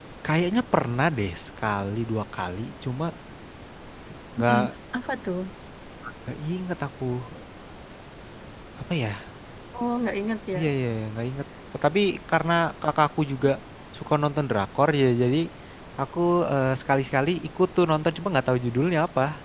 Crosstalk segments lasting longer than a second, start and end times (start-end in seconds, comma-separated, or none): none